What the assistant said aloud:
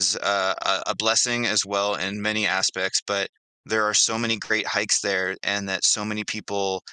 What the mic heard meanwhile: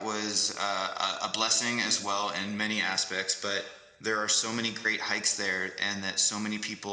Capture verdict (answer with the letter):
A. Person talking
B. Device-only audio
B